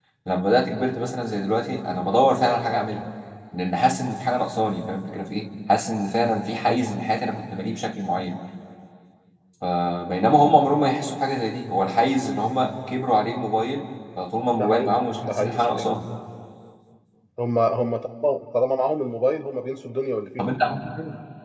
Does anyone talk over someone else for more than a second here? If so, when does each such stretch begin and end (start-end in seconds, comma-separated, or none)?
14.5-15.9